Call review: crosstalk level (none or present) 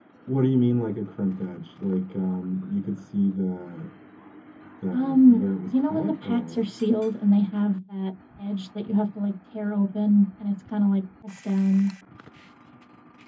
present